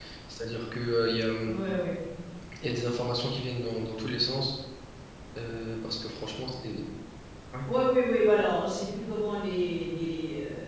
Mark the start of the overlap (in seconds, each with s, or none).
none